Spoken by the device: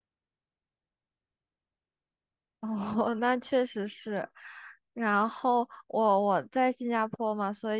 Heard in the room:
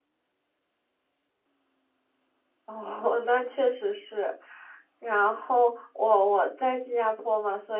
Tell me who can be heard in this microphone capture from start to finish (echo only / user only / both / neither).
echo only